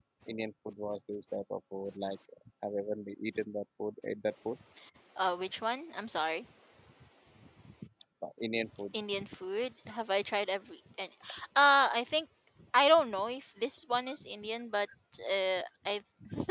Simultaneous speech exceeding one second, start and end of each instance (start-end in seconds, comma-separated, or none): none